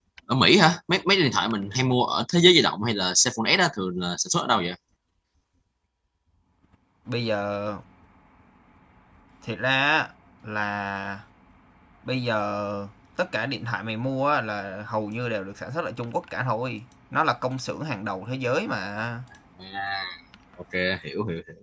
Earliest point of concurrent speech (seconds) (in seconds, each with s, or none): none